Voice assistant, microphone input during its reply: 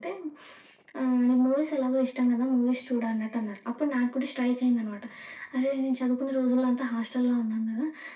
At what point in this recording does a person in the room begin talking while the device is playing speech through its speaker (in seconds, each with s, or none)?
none